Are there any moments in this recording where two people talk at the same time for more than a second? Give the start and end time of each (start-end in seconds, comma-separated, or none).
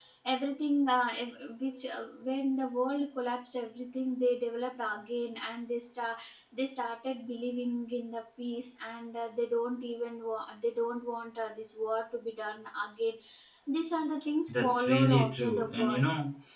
14.5-16.0